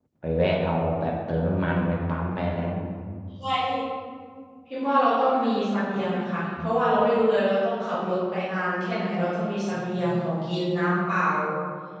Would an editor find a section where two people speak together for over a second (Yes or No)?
No